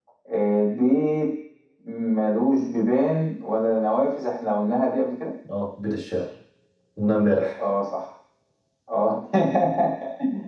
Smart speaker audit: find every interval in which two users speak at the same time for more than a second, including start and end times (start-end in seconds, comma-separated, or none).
none